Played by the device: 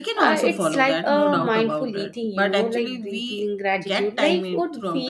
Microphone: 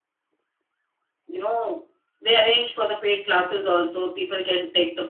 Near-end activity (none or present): present